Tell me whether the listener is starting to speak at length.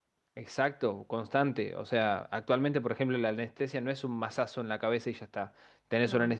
No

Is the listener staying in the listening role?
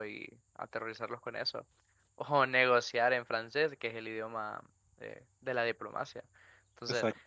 Yes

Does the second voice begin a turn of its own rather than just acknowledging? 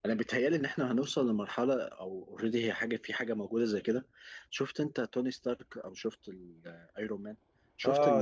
Yes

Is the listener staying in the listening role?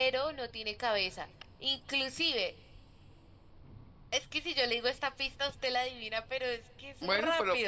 No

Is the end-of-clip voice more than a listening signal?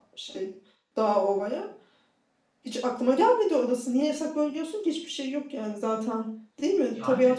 No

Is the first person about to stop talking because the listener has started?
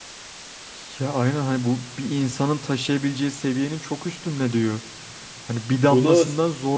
No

